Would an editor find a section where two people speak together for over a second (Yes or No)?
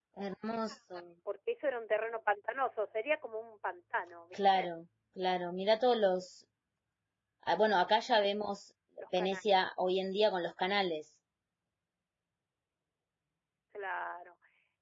No